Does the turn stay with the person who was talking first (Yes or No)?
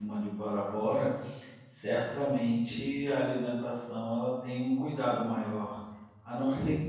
Yes